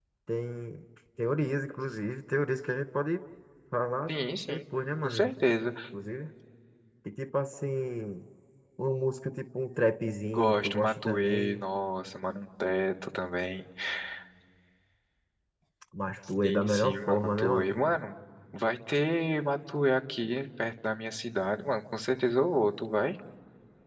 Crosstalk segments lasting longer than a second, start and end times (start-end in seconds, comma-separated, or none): 10.3-11.6, 16.4-17.7